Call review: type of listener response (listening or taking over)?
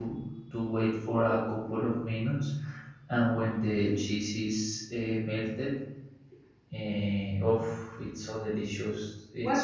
taking over